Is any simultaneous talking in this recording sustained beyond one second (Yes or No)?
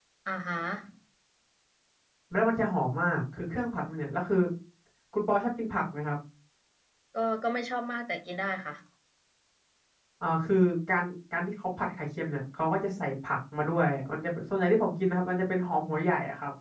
No